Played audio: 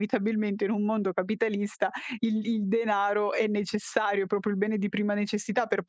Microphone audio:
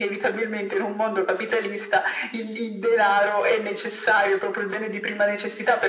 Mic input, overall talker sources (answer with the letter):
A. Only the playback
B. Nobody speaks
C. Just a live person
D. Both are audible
A